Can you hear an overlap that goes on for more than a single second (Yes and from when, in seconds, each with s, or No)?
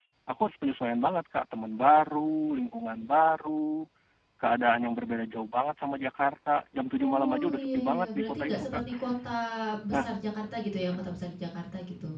Yes, from 7.0 s